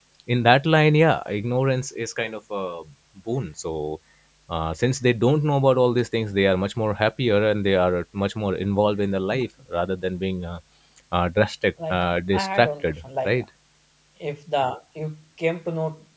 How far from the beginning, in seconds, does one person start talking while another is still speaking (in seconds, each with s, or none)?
11.9 s